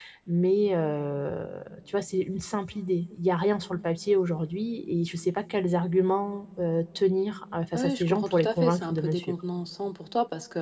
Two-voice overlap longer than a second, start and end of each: 7.7-9.3

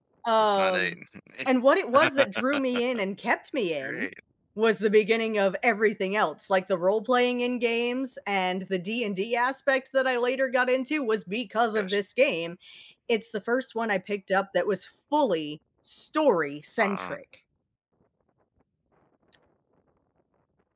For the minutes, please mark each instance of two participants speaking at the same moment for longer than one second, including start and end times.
none

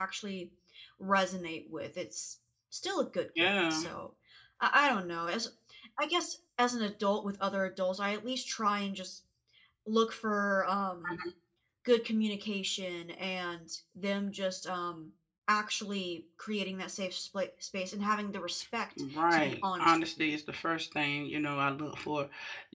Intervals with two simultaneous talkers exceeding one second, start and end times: 19.1-20.3

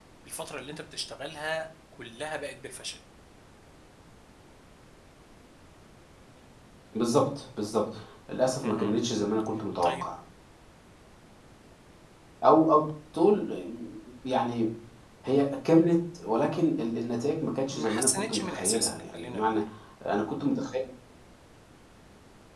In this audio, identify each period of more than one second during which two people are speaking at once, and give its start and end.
17.7-19.4

